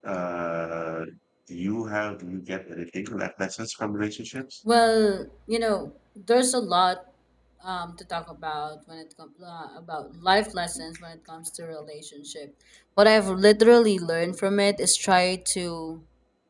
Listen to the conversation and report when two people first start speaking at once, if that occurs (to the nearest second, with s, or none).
none